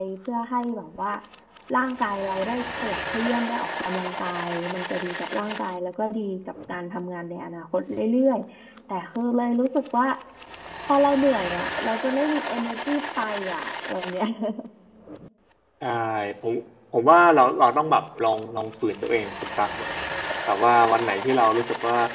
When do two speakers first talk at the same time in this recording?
none

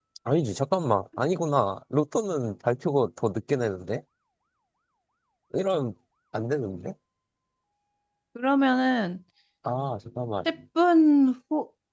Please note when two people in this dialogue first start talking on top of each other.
none

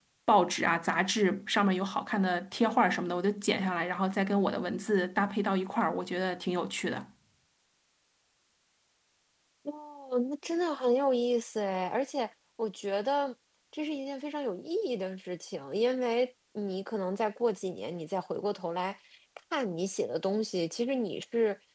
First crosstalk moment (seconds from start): none

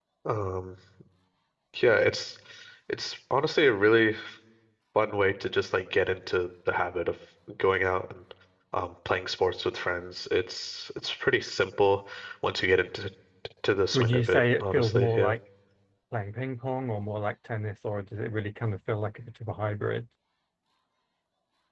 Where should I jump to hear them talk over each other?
13.9 s

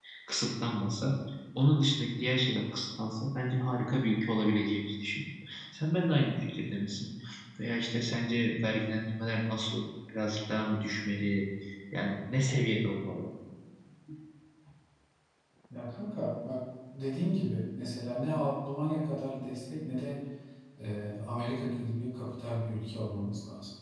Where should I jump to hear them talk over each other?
none

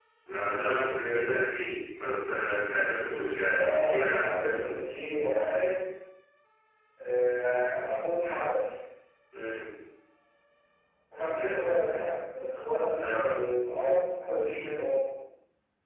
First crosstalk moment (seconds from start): 3.5 s

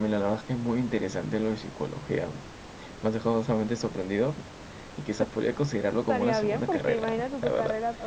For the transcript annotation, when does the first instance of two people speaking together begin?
6.1 s

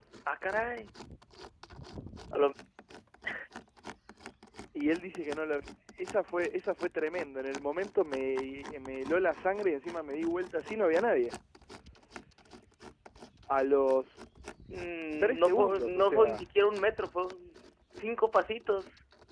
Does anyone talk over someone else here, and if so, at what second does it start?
15.2 s

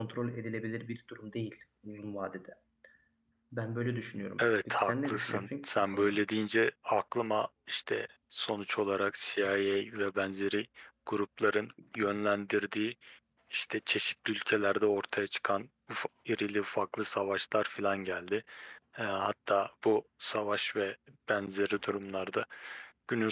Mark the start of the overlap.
4.4 s

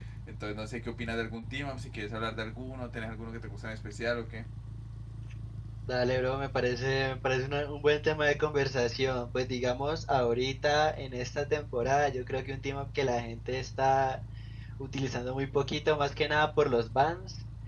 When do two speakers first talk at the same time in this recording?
none

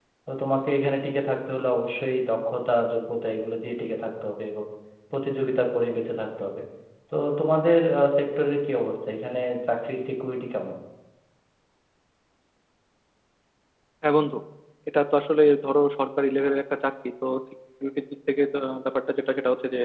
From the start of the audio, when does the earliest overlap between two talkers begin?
none

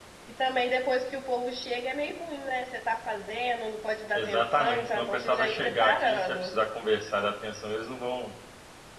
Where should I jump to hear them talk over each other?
4.1 s

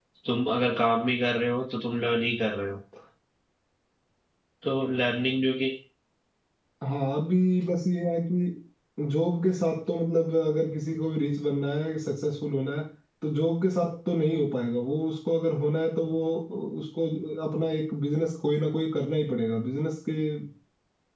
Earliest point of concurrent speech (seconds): none

